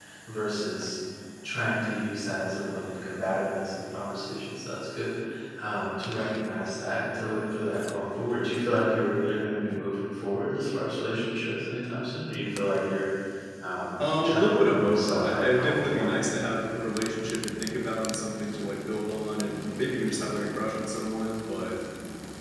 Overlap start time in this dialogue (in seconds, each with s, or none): 14.2 s